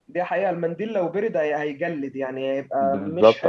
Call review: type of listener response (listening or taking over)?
taking over